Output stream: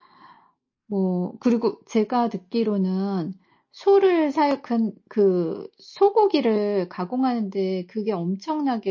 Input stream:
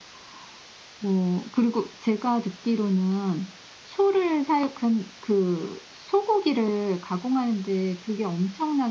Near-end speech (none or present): none